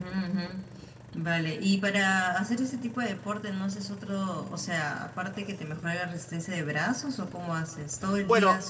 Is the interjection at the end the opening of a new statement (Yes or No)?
Yes